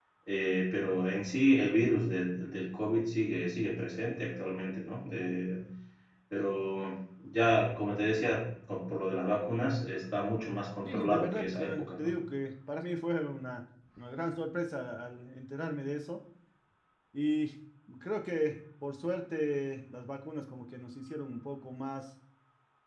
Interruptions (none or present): present